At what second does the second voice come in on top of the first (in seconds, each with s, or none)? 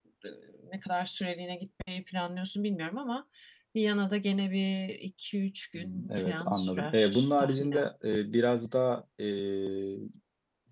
5.8 s